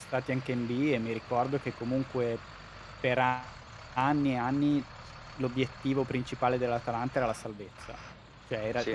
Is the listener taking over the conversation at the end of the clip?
No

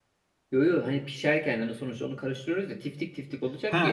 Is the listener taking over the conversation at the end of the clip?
Yes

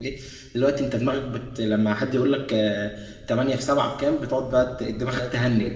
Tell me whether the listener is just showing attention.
No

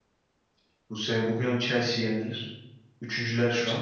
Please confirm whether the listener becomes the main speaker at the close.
No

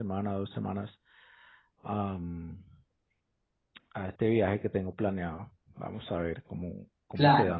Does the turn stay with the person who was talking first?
No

